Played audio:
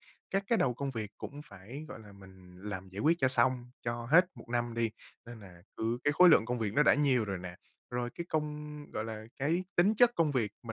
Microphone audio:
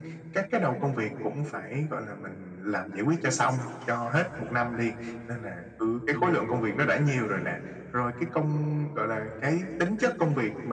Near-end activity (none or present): present